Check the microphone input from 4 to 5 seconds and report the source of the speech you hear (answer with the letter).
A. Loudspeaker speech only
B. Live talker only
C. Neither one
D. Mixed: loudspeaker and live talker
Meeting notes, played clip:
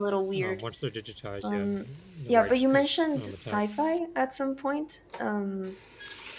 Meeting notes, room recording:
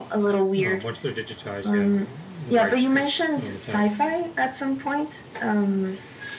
A